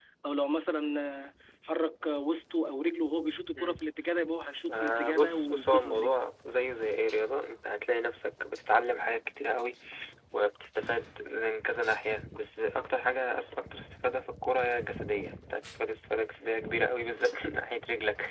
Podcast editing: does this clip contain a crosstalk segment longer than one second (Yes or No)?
Yes